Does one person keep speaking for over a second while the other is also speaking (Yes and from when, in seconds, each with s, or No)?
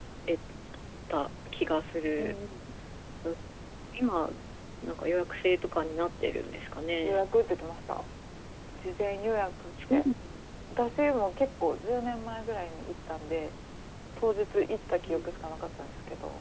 No